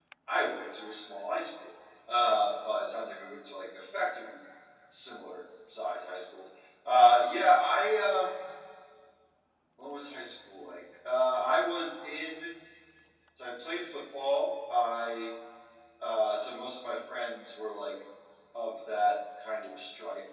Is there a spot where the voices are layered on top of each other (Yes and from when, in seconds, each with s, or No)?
No